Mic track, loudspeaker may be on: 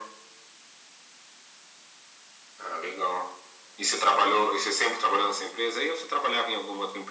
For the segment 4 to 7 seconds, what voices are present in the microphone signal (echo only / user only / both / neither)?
echo only